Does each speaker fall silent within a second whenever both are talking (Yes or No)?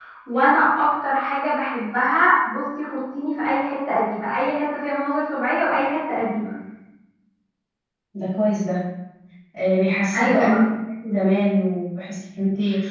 Yes